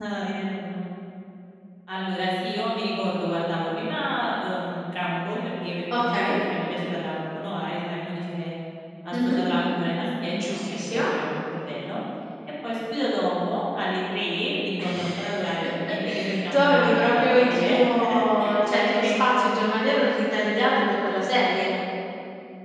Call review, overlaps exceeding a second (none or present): present